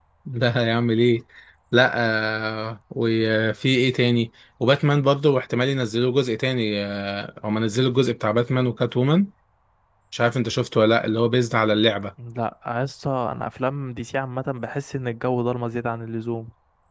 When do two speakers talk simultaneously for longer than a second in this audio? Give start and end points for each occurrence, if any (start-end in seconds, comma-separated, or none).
none